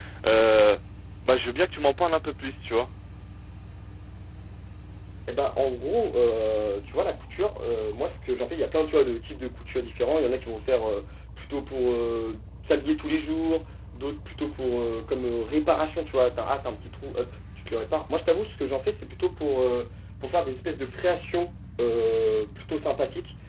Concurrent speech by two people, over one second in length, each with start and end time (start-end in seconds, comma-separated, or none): none